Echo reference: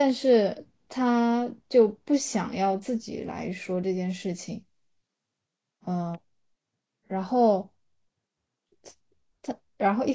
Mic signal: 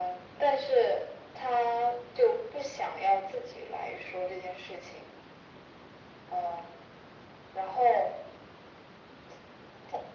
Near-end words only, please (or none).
none